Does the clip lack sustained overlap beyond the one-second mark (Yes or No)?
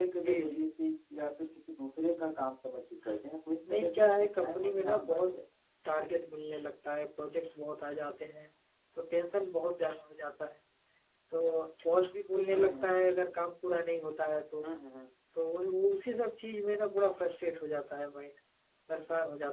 No